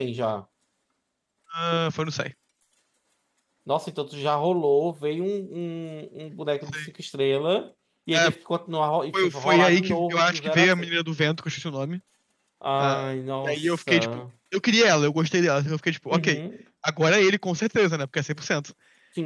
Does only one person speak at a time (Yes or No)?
No